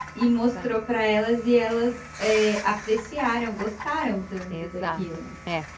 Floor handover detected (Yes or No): Yes